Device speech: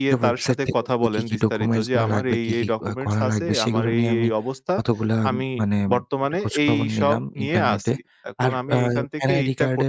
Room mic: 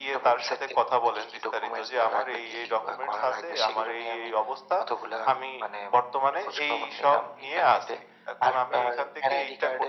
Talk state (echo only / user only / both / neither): echo only